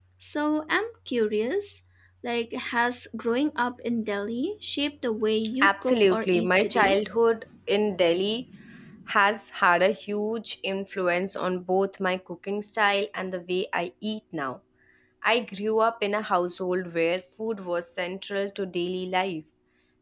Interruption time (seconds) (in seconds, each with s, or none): 5.6 s